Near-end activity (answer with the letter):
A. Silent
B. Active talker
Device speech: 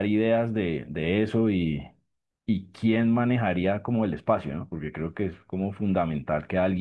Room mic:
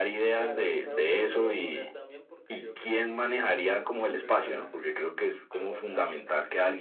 B